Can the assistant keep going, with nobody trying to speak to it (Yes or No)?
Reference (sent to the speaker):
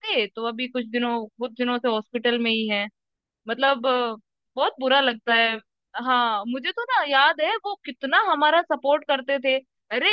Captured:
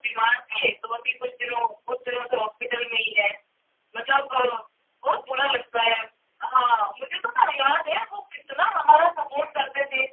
Yes